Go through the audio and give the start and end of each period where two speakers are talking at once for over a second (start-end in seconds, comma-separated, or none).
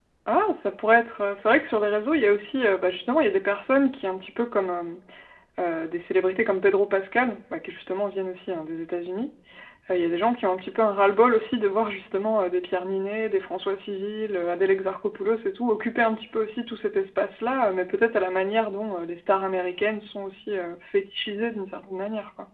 none